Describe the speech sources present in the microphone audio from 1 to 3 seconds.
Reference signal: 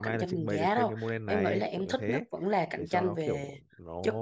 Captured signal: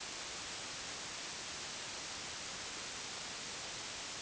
neither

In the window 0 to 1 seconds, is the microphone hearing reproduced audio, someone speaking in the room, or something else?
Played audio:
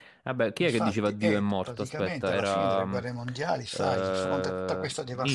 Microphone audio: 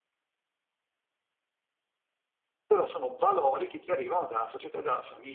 neither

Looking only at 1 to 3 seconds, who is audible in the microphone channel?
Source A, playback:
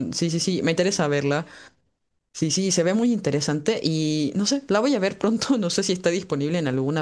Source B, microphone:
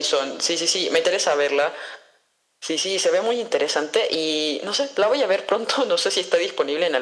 echo only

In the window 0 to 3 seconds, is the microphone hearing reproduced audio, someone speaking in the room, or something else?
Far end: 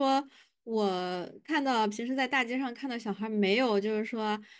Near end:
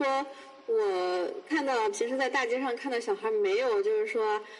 echo only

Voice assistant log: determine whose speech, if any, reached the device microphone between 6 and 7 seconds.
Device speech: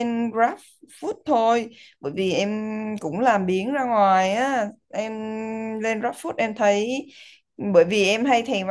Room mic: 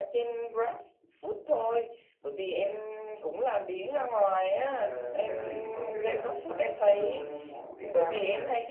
both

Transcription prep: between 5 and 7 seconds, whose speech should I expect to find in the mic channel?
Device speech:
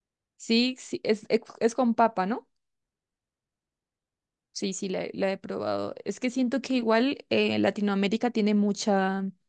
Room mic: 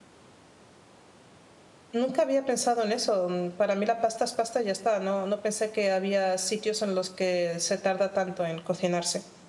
user only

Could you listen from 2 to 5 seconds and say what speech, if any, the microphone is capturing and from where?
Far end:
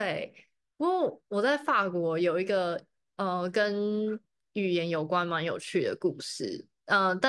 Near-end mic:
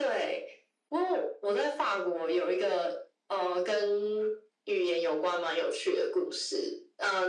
echo only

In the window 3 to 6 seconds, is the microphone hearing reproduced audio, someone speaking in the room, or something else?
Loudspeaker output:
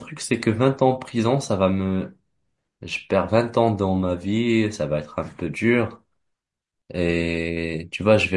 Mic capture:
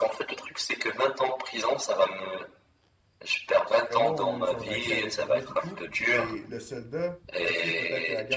both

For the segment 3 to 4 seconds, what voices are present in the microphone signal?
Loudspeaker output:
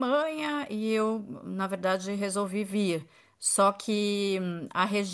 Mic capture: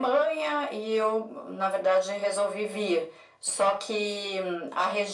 echo only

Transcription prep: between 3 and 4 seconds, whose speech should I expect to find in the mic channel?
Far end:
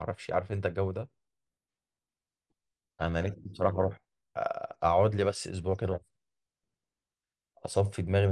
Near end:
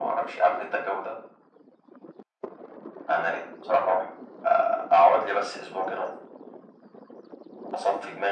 echo only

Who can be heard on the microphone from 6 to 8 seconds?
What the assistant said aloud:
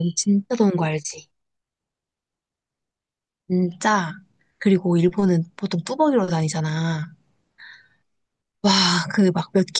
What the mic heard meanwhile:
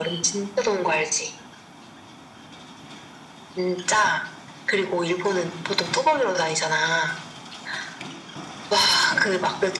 echo only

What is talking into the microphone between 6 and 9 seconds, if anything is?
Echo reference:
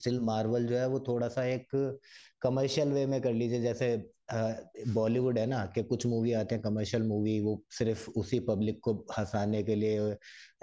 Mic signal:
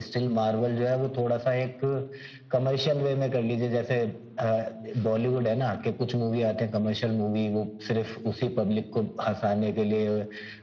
echo only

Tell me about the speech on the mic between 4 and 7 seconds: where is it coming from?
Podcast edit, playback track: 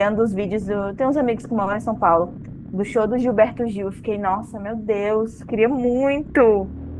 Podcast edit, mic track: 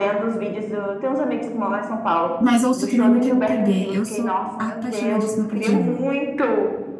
both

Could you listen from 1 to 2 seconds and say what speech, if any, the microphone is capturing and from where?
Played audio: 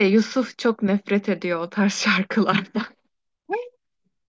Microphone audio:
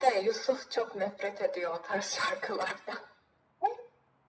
echo only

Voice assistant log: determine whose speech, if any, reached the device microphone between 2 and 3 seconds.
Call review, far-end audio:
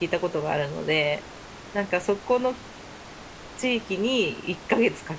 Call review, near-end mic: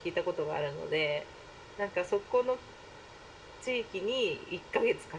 echo only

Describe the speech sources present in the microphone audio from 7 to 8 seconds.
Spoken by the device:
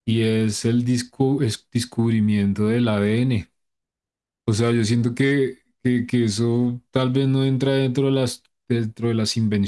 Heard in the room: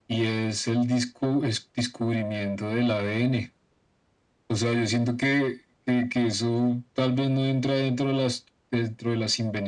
echo only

